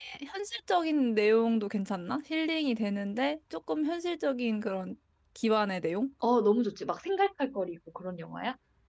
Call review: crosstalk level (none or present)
none